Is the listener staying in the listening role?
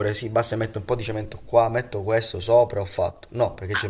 No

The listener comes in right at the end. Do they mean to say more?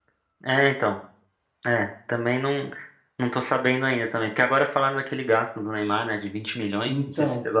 Yes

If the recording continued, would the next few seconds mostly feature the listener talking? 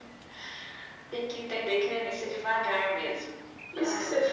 Yes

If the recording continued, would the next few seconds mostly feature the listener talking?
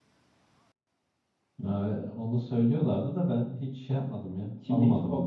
Yes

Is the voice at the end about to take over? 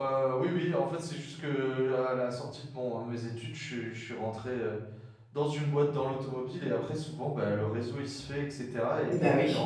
No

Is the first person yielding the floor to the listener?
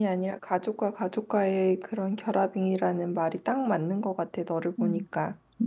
Yes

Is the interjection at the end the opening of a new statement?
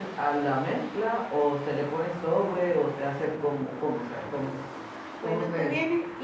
Yes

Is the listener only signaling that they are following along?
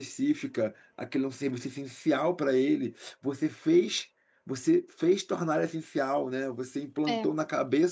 Yes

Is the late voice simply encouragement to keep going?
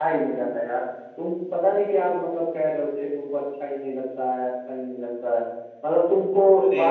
Yes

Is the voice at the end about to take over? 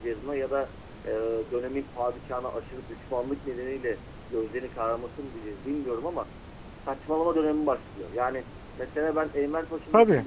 No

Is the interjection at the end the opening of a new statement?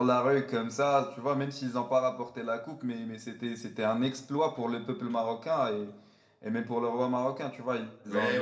Yes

